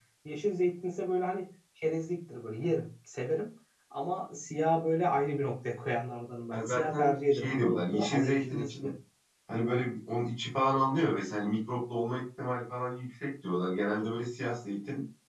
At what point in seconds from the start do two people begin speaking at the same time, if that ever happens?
6.5 s

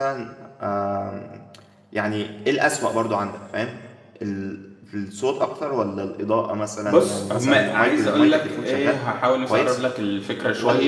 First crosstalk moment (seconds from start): 6.8 s

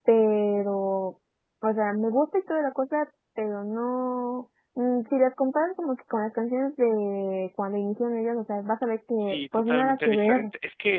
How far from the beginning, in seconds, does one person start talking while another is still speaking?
9.2 s

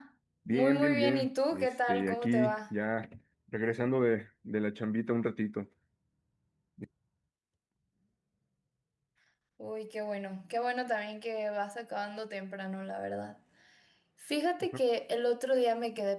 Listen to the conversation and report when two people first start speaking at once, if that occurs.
0.5 s

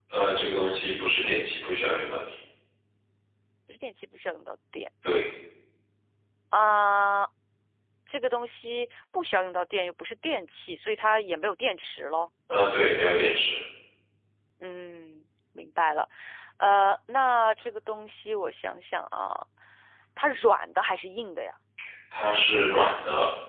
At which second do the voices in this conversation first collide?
none

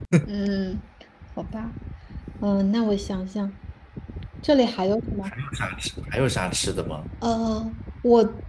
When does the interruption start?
none

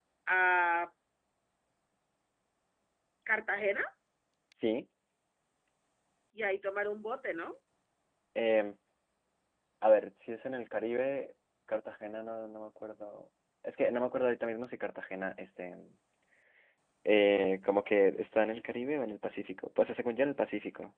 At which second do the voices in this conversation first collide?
none

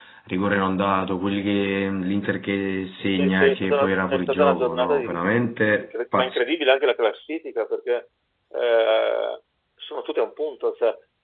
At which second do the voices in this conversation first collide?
3.2 s

